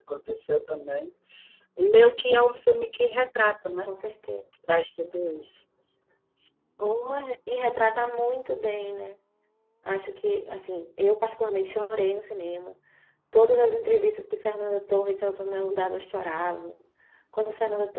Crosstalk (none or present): none